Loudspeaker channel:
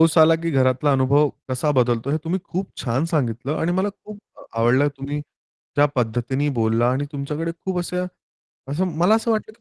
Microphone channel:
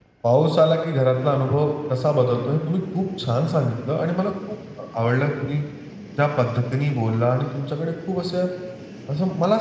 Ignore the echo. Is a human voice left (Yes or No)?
No